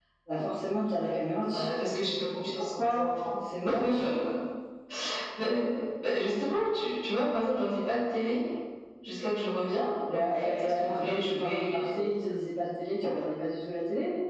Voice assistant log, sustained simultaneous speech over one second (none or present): present